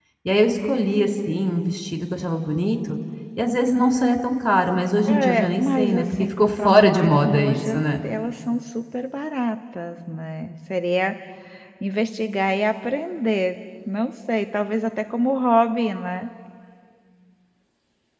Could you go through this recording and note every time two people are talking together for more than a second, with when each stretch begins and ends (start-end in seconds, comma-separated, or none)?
5.1-7.8